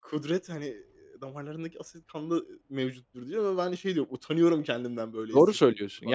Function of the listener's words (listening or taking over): taking over